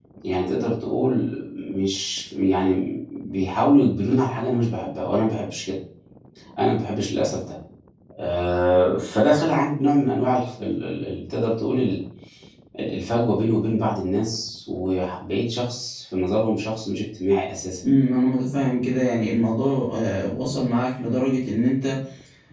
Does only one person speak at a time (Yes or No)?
Yes